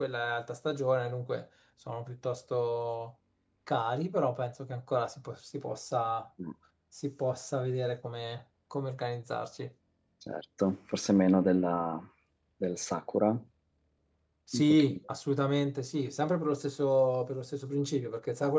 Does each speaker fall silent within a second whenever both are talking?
Yes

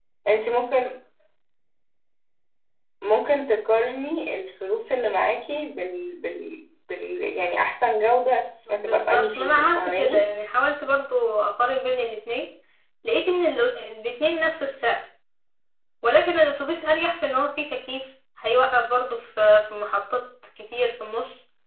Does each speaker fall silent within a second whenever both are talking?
No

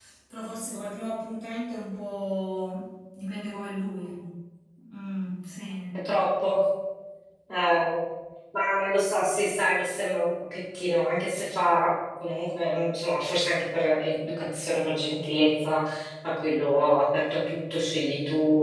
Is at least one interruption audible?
No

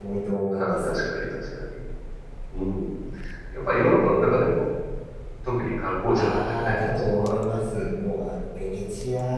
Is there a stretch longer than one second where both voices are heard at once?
Yes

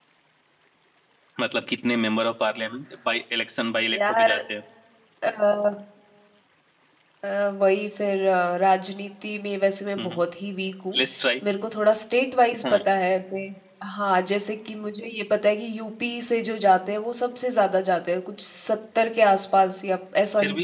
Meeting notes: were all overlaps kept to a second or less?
Yes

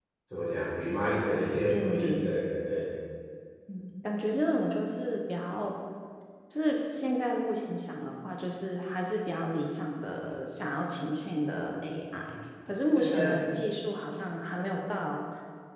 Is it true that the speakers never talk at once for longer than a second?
No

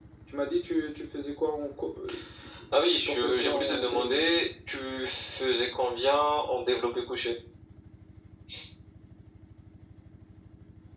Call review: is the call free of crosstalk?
No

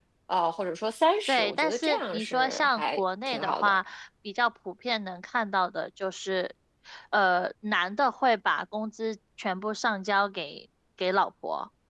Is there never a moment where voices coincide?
No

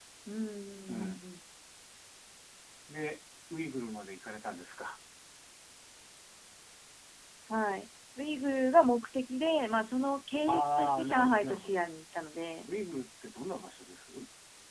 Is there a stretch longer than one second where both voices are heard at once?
Yes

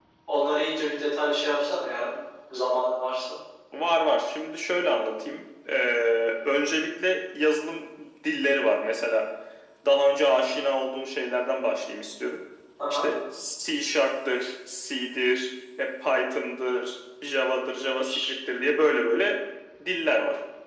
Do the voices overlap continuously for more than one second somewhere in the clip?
No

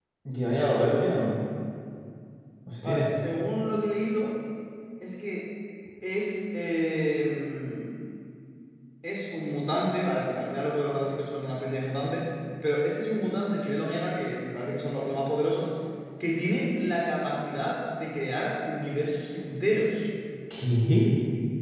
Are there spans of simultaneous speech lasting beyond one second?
No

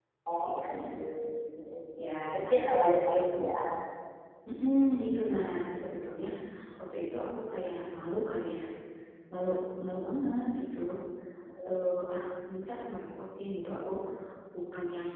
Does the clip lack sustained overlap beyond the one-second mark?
No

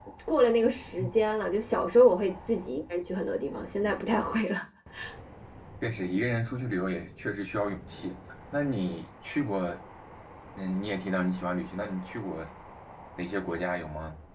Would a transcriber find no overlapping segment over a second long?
Yes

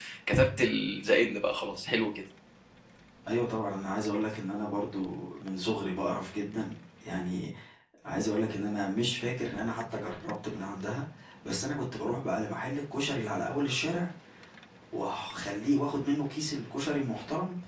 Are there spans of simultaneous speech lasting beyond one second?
No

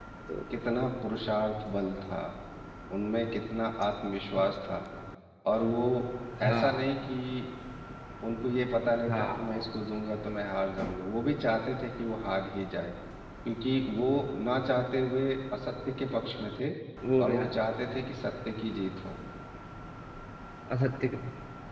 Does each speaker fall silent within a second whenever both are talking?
Yes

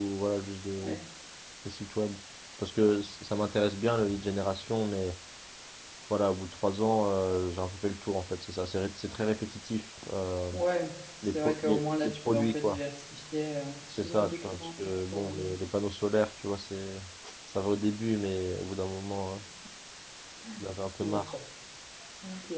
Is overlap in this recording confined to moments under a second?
No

